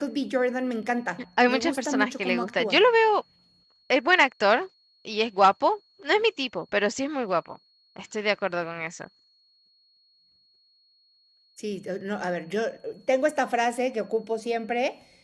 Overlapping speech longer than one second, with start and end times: 1.5-2.8

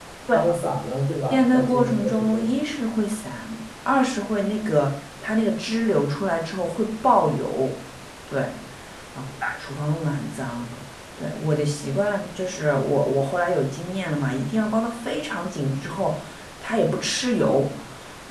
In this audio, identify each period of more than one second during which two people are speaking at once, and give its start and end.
1.3-2.5

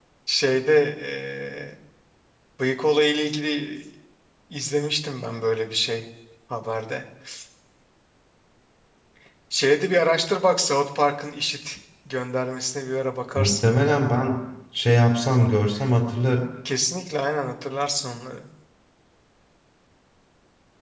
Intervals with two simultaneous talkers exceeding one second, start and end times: none

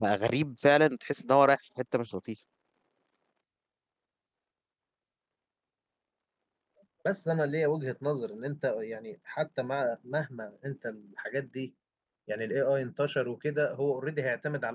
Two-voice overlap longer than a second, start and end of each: none

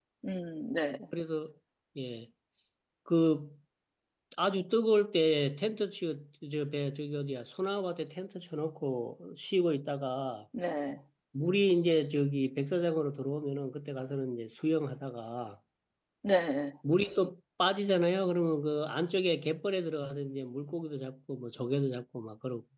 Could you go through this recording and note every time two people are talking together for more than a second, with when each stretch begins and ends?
none

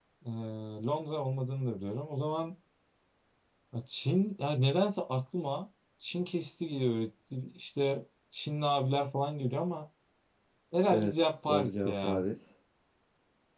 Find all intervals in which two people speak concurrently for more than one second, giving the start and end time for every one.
10.9-12.2

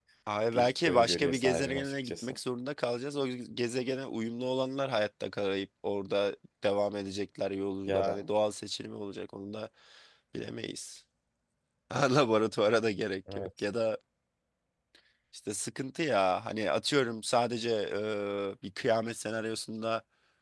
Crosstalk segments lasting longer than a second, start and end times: 0.5-2.4

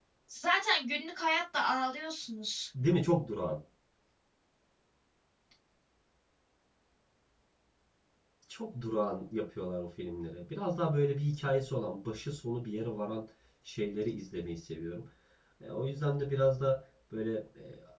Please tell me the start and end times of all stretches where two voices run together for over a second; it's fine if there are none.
none

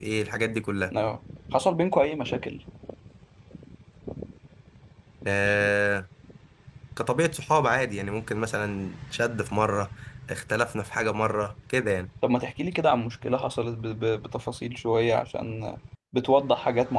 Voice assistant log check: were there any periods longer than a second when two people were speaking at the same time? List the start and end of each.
none

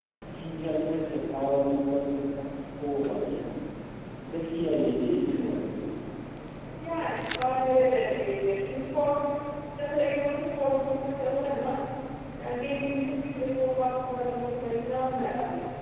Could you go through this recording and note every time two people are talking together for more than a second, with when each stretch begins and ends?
none

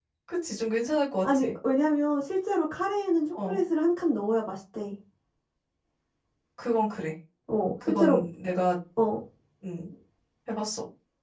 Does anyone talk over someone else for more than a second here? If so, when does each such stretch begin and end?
none

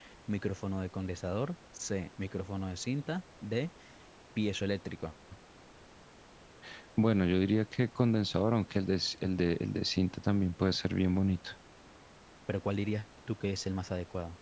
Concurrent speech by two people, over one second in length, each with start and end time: none

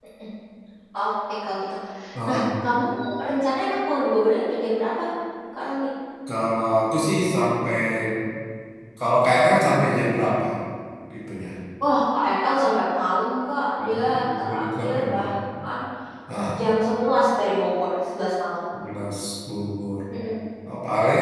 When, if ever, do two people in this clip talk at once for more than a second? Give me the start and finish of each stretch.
13.8-15.3

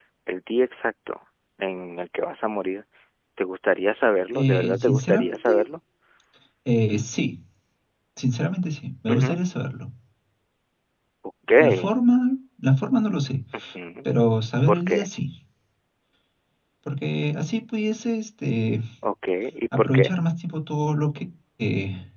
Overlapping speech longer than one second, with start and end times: 4.3-5.6

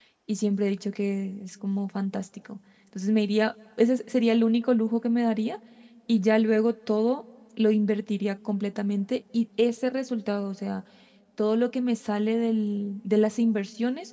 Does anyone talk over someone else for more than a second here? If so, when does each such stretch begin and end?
none

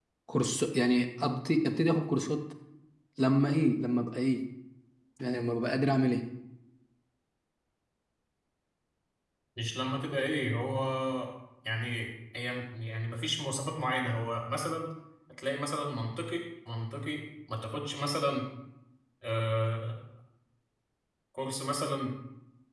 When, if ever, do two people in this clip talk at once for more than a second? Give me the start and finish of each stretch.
none

